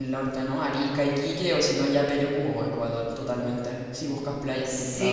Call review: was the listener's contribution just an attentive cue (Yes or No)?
No